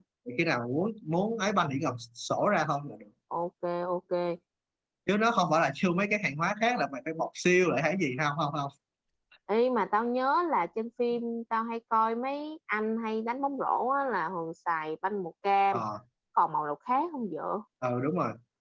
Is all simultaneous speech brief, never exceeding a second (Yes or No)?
Yes